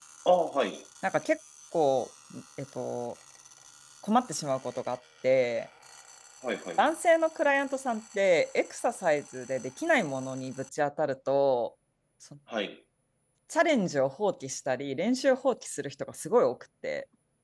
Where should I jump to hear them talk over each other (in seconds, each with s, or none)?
none